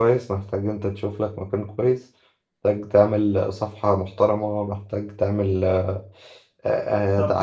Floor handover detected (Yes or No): Yes